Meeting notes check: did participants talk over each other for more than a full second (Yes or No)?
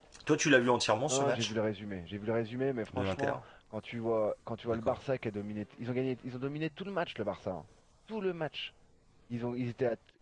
No